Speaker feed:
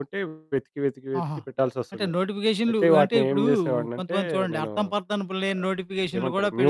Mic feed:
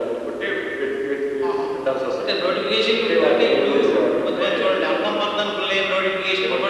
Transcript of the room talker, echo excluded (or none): none